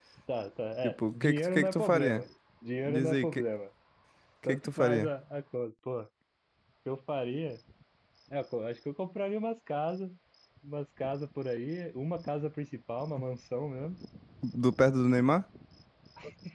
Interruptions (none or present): present